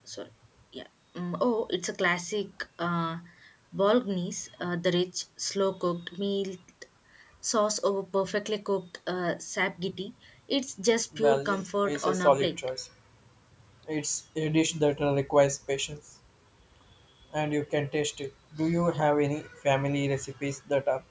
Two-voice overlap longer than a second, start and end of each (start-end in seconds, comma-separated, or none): 11.2-12.5